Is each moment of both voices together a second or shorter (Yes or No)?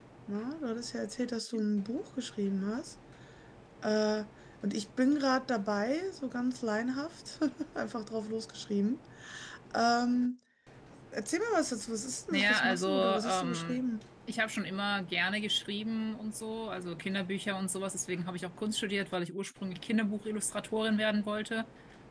No